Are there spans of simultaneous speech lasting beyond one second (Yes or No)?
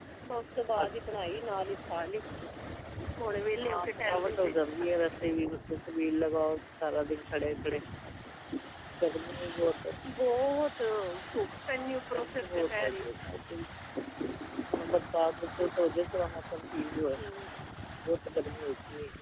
Yes